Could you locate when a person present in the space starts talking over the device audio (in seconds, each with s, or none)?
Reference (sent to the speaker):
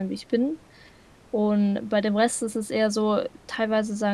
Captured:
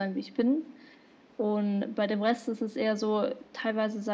none